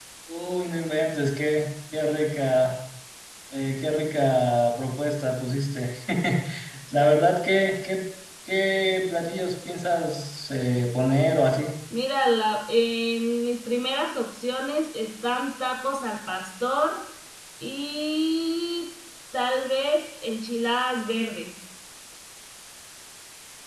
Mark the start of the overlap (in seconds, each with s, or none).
none